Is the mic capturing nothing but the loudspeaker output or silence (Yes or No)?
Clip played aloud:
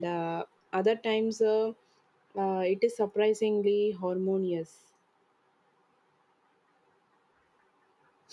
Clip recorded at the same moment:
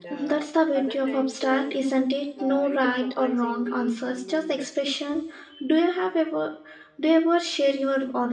No